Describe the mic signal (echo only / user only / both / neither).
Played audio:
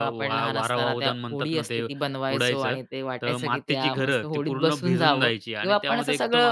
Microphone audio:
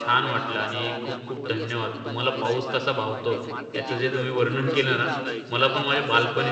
both